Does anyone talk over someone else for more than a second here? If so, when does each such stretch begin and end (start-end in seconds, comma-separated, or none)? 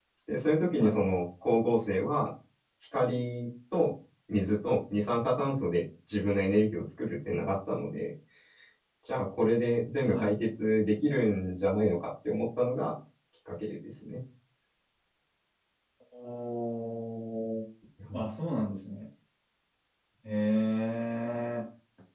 none